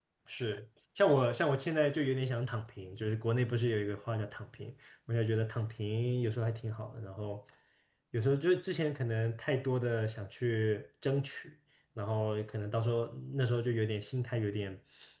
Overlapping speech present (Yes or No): No